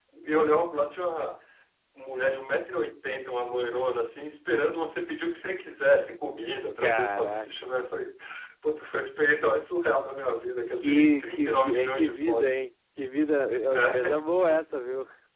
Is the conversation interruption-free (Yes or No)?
No